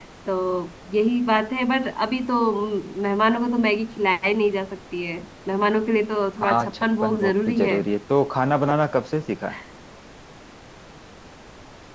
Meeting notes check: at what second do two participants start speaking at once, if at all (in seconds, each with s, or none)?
6.4 s